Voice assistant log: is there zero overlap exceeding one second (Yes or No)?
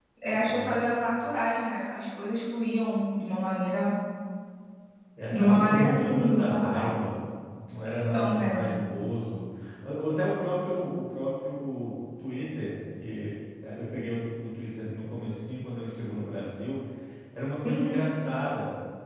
No